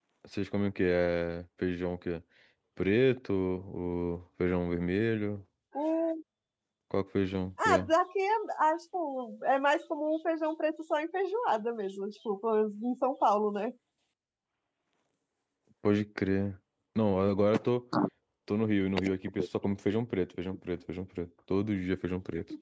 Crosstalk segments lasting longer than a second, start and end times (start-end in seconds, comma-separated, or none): none